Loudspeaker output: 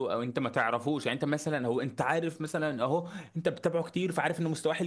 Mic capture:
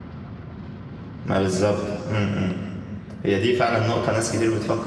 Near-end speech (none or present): present